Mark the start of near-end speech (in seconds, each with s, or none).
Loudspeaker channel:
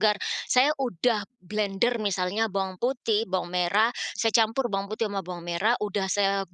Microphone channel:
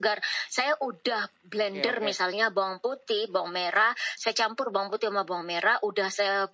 1.6 s